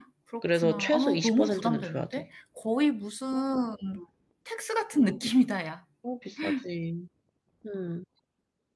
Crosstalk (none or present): present